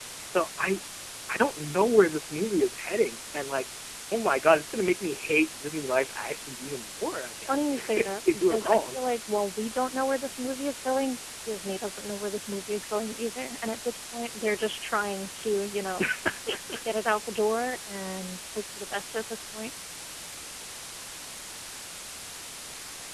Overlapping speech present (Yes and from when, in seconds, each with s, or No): Yes, from 7.5 s